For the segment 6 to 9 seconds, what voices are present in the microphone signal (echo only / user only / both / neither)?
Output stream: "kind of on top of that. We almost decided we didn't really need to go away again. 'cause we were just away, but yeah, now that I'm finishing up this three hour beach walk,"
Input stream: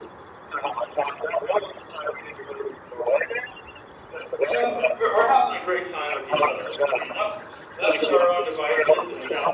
both